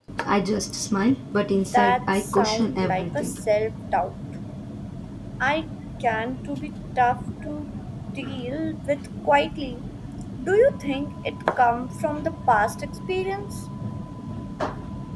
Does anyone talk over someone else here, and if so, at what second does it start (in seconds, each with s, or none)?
1.7 s